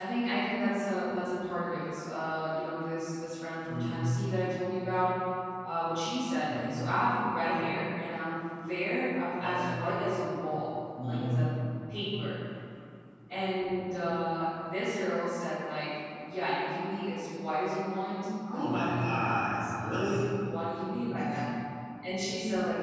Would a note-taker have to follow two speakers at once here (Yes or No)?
Yes